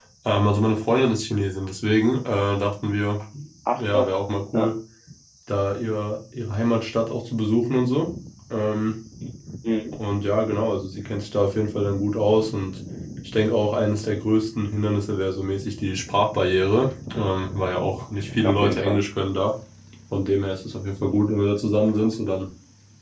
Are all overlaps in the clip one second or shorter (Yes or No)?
Yes